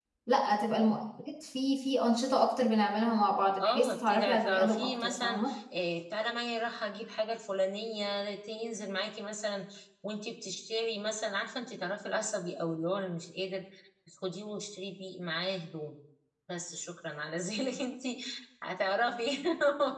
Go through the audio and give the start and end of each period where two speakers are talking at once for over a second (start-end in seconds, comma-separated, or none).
3.6-5.5